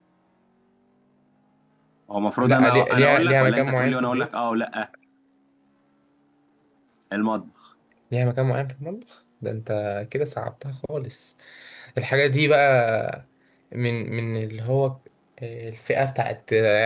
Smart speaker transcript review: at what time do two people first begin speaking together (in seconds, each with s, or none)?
2.4 s